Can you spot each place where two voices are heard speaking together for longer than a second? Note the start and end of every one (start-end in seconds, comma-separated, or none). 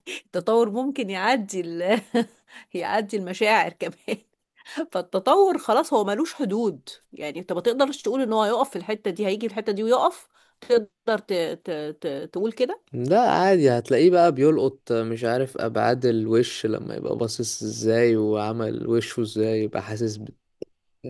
none